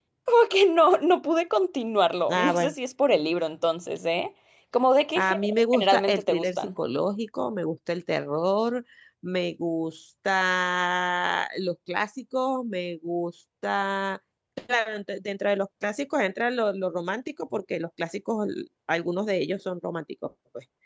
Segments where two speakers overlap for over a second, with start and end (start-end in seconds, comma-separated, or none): 5.2-6.7